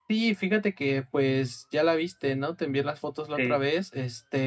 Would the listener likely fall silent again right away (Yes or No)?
Yes